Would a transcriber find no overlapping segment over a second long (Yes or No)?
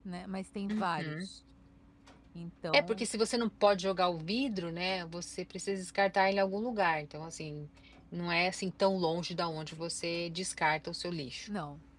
Yes